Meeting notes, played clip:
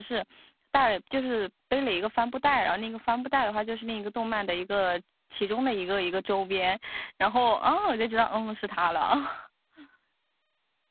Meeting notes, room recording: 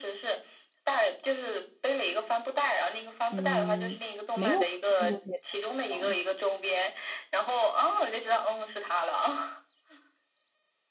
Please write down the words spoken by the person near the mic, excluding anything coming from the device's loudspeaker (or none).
嗯，没有用过这些东西哦，